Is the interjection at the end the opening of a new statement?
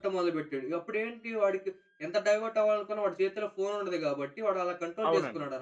Yes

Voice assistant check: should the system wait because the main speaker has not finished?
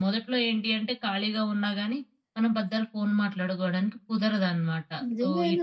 No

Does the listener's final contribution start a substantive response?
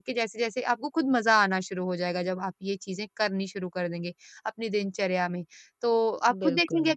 No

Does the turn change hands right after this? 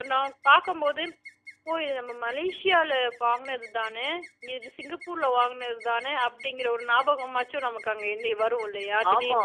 Yes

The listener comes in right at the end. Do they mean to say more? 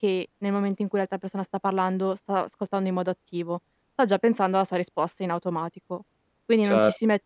No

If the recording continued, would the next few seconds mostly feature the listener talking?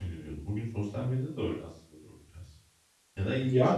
Yes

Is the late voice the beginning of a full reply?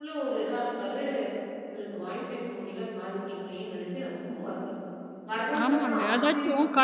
Yes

